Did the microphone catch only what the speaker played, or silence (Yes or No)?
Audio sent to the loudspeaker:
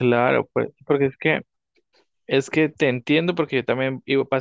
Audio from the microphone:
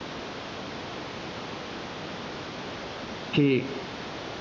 No